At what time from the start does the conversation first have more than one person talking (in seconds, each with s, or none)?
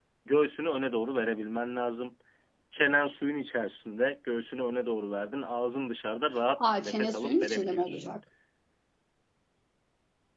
6.6 s